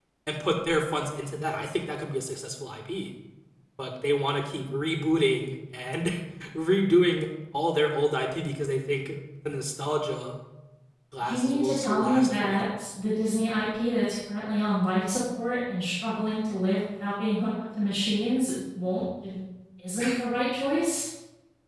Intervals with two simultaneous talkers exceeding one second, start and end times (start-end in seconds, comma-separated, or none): 11.3-12.6